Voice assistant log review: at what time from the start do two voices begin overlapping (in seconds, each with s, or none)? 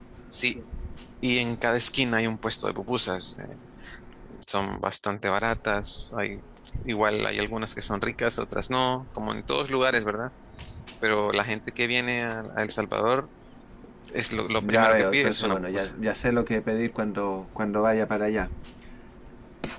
14.6 s